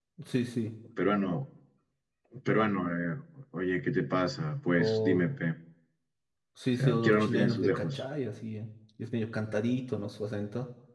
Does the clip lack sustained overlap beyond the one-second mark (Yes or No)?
No